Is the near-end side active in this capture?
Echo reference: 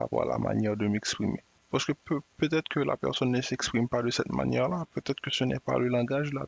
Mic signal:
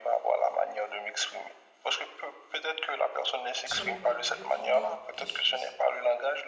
Yes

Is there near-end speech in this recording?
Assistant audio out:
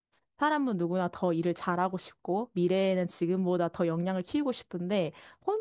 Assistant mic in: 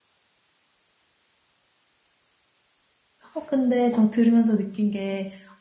Yes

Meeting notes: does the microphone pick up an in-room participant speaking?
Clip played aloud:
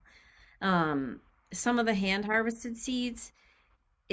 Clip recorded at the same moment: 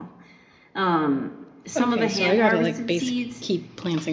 Yes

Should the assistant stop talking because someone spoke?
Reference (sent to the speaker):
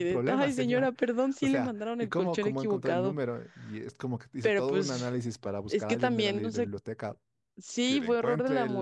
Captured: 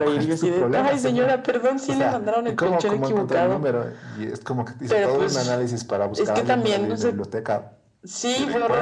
No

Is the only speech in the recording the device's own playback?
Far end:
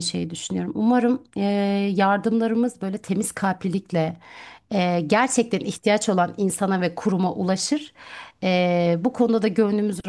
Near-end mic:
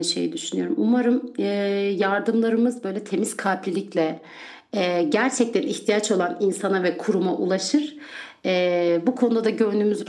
Yes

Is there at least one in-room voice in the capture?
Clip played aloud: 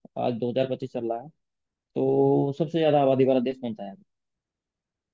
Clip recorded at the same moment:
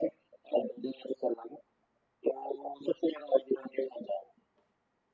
No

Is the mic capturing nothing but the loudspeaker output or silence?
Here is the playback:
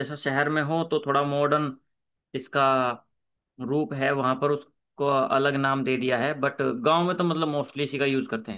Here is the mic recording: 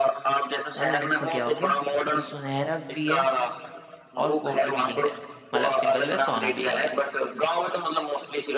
No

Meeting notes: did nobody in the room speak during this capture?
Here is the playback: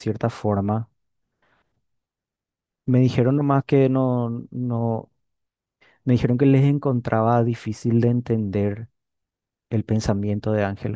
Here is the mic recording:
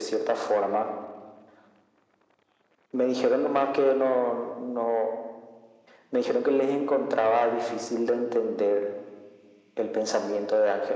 Yes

